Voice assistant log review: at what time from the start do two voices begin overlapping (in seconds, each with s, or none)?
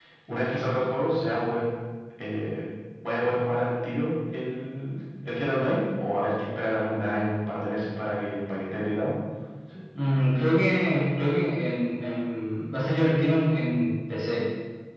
none